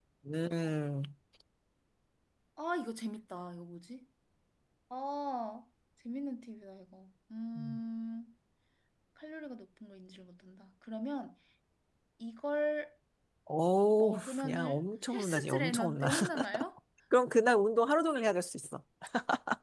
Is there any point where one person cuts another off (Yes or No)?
Yes